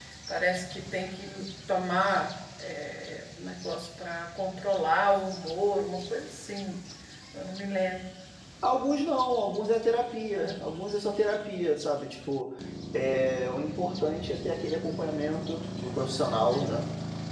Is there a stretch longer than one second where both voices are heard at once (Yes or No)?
No